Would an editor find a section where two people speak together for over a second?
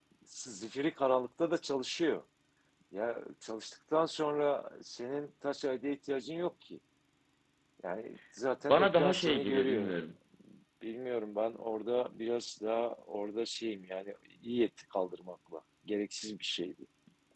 Yes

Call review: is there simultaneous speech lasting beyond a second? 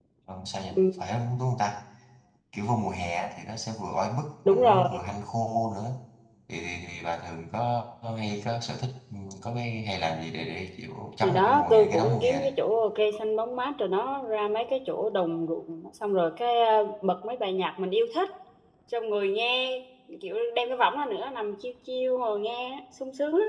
Yes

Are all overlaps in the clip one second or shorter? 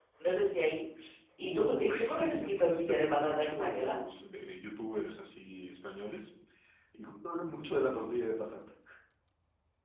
No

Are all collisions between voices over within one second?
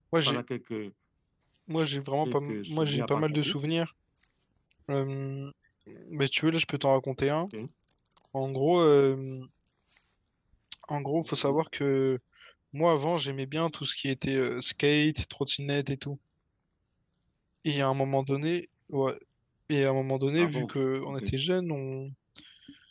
No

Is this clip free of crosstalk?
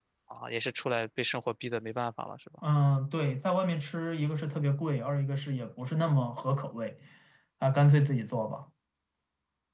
Yes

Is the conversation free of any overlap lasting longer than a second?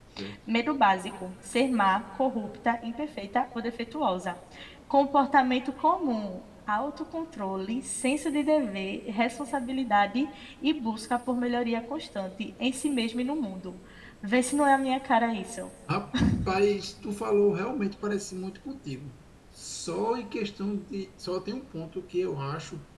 Yes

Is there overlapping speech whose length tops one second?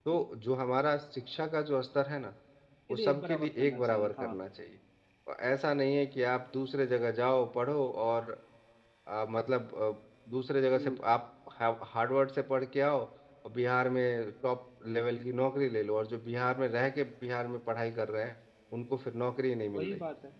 Yes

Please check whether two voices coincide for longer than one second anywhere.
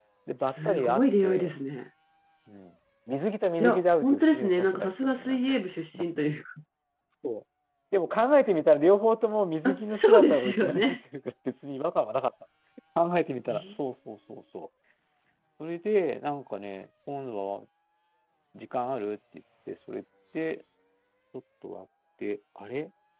Yes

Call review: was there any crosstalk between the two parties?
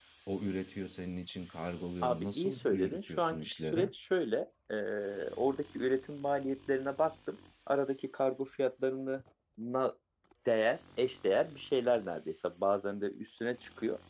Yes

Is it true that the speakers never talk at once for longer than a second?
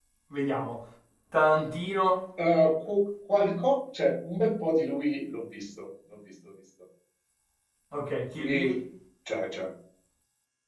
Yes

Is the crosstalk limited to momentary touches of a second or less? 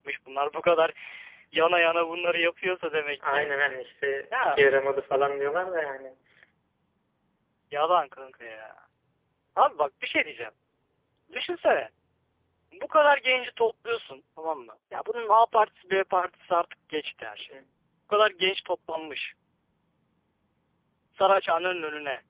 Yes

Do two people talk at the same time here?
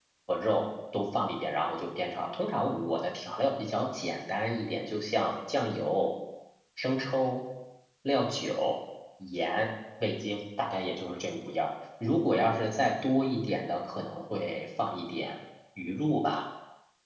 No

